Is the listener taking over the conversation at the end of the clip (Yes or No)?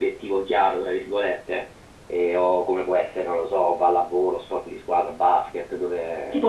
Yes